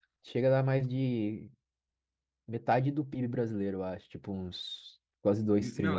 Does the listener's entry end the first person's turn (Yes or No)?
Yes